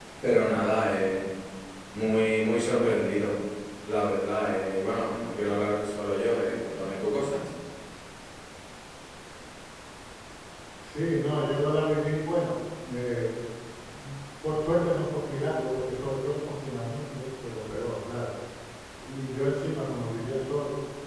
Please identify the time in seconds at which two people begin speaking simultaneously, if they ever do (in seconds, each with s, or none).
none